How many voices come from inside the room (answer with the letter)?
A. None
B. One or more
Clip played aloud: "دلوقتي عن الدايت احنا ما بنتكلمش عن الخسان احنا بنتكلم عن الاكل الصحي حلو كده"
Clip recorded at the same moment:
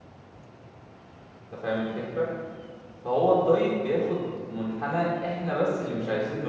B